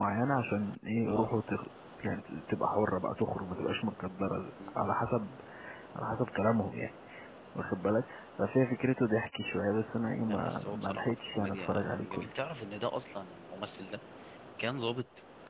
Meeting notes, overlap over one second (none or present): present